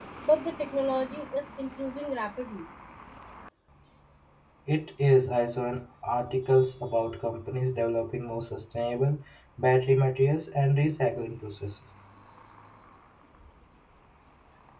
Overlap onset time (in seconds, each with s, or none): none